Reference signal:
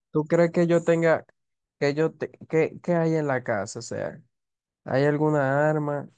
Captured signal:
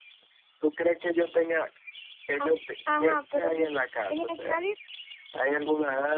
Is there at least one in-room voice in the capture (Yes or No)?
Yes